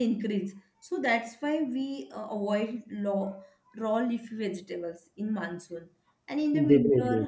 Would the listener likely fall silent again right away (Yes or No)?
Yes